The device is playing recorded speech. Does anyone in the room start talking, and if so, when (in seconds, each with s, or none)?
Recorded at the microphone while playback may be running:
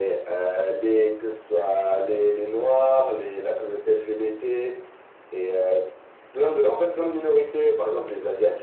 none